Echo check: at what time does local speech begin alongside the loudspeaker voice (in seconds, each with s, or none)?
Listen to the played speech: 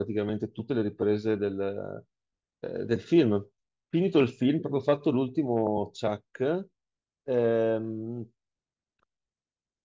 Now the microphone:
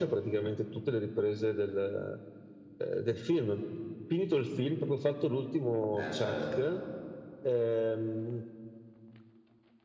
5.9 s